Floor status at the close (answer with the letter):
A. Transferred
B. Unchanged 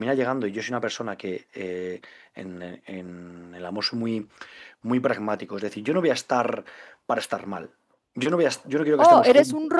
A